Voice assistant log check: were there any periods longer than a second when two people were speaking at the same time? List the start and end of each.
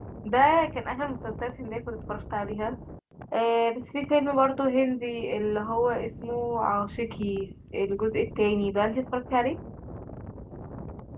none

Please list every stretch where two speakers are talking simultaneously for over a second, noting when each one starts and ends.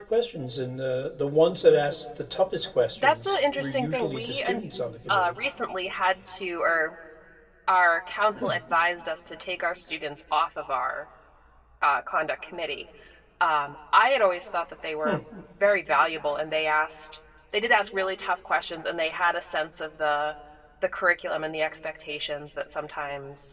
3.0-4.5

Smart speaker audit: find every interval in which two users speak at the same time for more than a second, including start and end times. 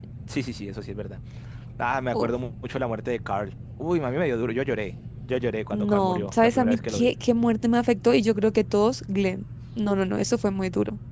5.7-7.1

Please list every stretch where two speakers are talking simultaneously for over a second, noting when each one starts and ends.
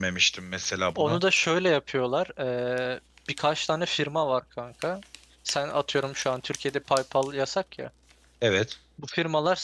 none

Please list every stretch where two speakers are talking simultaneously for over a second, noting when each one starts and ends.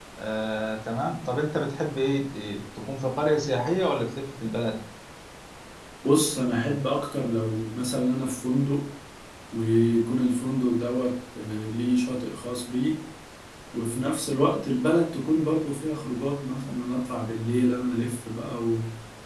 none

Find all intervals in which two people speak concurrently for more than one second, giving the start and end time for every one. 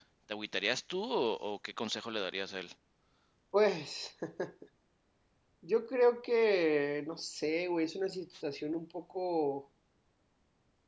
none

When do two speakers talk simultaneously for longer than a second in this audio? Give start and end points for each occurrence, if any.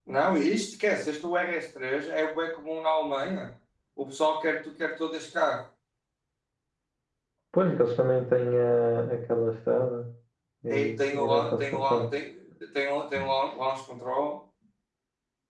10.7-12.0

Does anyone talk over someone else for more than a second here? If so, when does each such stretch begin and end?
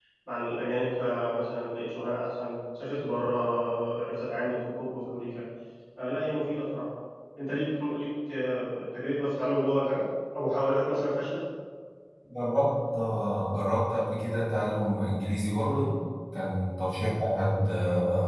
none

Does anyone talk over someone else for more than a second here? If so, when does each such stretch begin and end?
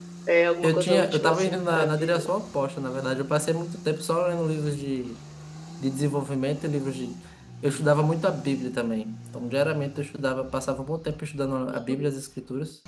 0.6-2.3

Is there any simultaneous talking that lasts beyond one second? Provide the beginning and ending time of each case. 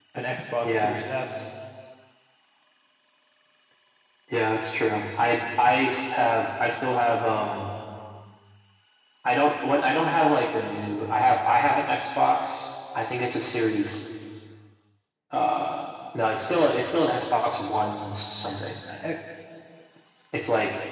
none

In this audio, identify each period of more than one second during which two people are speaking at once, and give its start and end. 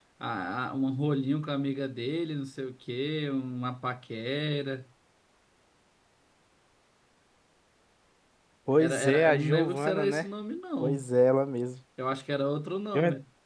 8.8-10.3

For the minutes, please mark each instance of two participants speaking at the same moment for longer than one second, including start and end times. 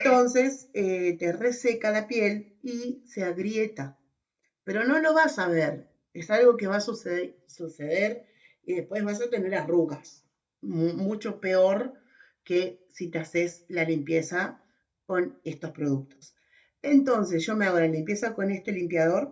none

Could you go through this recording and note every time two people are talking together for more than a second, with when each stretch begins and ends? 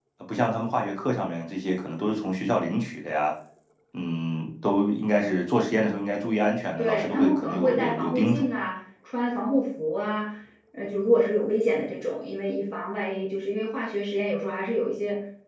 6.8-8.4

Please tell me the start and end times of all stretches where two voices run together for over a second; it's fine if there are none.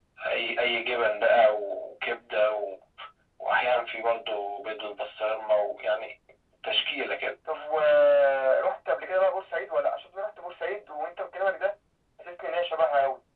none

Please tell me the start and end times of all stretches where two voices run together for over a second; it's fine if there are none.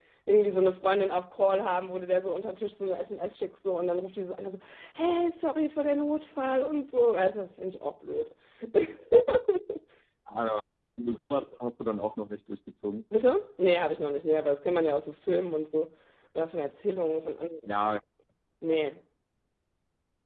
none

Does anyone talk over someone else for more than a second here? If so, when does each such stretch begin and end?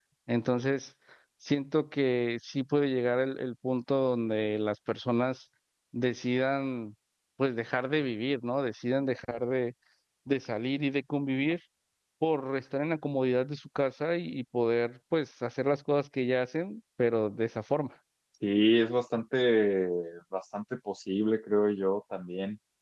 none

